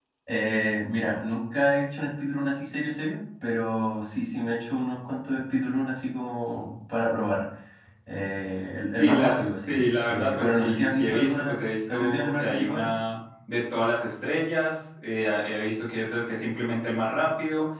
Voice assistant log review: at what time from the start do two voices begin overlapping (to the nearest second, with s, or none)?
9 s